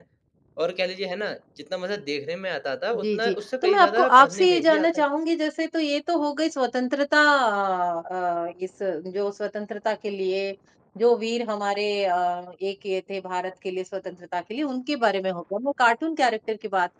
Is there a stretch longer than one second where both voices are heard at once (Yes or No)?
Yes